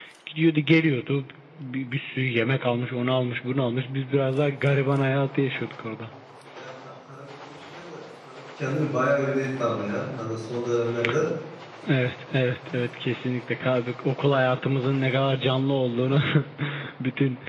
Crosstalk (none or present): none